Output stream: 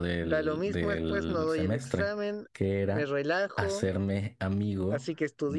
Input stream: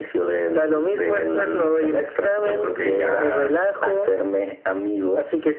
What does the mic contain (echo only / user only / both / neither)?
both